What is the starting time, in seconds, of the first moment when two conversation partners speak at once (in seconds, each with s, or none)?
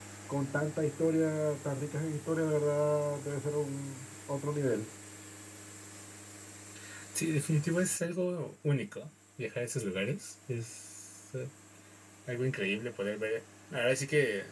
none